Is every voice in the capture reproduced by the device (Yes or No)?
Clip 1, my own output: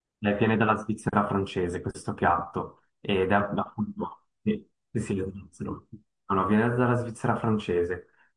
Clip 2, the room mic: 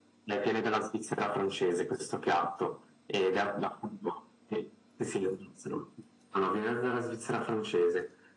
Yes